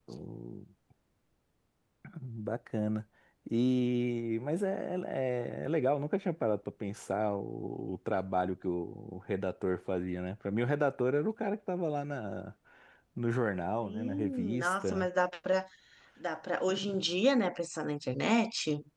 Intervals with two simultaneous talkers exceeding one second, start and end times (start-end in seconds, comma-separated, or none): 13.8-15.1